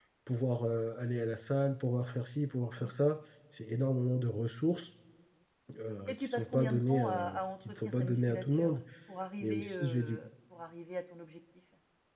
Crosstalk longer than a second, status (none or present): present